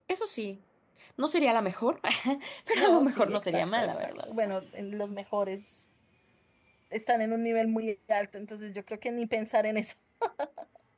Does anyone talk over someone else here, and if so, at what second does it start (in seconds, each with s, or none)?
2.7 s